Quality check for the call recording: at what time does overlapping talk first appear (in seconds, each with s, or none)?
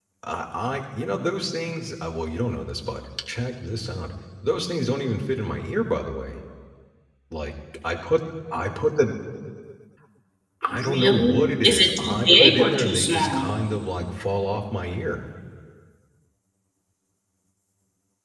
10.7 s